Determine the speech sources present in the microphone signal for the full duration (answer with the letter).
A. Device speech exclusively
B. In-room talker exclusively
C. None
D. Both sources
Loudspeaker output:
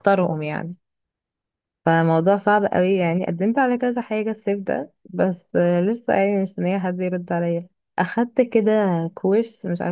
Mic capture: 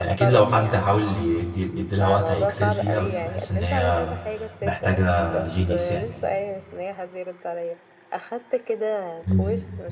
D